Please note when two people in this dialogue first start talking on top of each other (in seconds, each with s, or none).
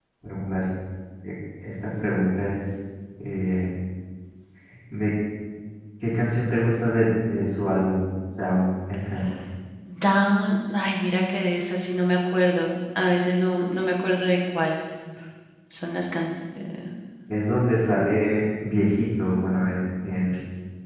none